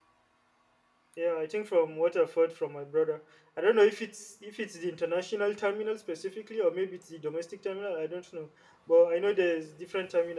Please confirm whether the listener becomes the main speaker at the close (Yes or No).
No